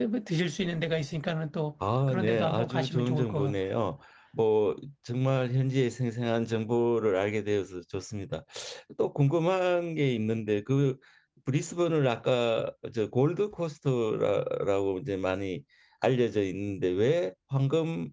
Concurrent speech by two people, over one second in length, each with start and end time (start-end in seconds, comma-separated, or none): 2.1-3.6